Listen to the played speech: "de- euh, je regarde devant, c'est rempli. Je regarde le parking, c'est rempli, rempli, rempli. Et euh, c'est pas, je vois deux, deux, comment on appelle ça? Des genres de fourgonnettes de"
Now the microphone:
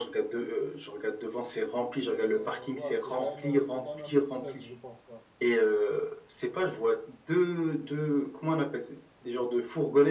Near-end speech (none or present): present